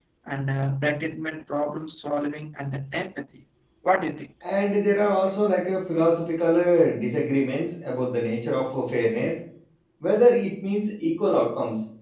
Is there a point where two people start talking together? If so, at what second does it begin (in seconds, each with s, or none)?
none